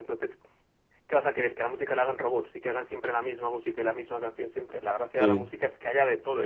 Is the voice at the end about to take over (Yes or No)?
No